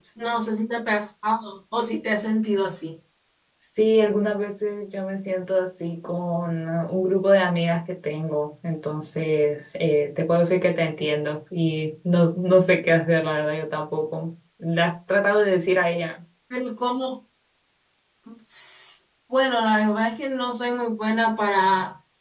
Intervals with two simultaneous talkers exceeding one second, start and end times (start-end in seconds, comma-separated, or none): none